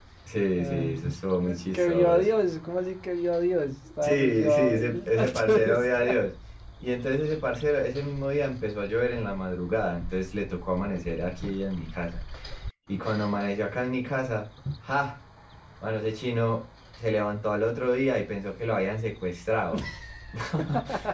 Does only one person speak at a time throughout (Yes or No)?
No